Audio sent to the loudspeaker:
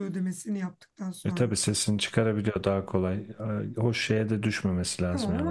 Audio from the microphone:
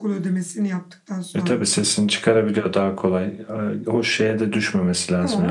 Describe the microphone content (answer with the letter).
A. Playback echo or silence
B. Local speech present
A